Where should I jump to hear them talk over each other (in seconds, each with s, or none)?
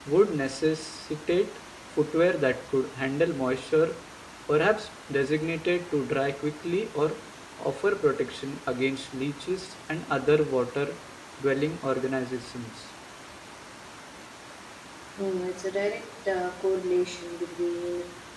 none